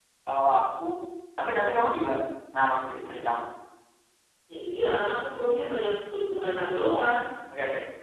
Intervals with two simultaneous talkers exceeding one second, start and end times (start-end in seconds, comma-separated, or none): none